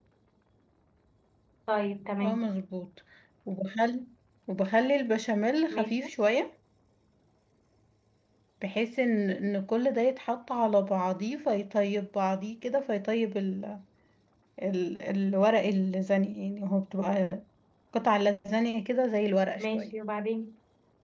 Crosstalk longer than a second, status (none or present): none